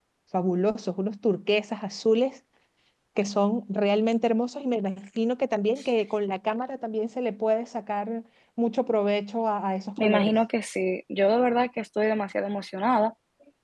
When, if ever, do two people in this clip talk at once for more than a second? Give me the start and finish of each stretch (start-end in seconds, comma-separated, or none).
none